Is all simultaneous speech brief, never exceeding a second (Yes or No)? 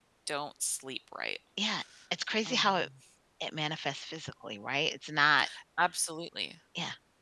Yes